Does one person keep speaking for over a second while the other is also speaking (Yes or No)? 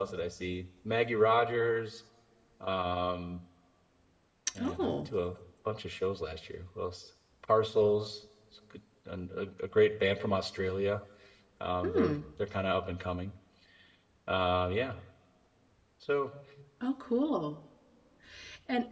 No